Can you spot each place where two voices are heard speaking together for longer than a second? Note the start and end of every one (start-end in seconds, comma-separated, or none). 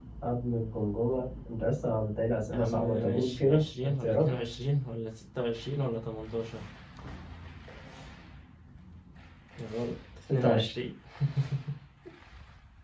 2.5-4.2